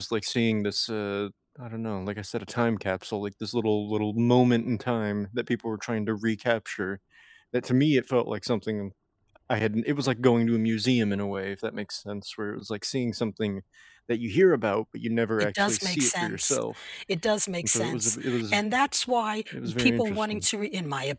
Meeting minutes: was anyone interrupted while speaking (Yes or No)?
Yes